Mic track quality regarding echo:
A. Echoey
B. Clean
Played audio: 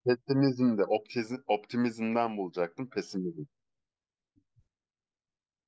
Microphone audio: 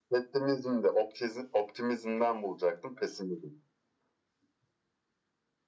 A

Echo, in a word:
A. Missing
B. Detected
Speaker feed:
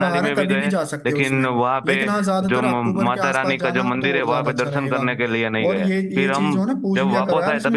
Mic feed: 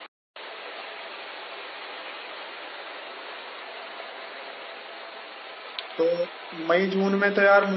A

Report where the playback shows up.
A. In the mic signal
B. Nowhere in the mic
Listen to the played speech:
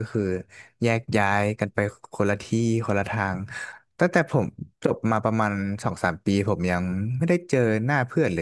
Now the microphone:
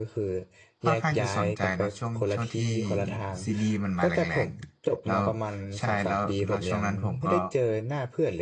A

